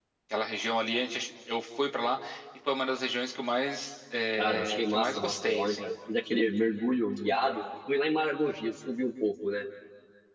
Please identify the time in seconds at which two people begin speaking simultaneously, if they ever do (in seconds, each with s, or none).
4.4 s